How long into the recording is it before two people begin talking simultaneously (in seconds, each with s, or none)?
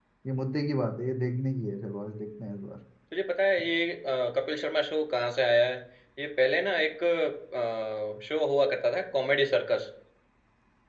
none